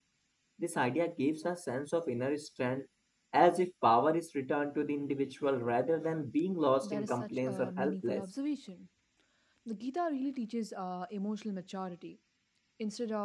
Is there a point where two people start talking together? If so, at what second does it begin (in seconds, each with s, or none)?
6.8 s